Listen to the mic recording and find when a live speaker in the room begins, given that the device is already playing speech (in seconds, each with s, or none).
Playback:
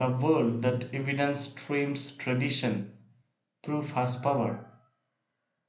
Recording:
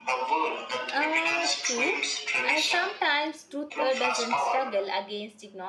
0.9 s